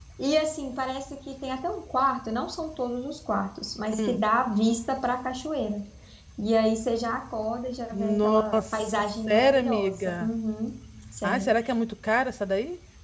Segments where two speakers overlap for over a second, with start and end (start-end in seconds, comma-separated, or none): 7.9-10.3